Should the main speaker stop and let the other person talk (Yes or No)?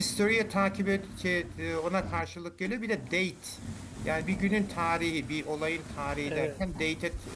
No